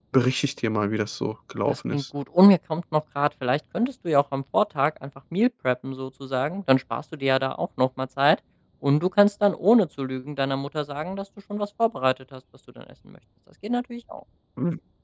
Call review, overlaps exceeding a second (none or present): none